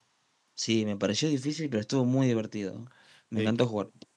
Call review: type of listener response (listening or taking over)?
taking over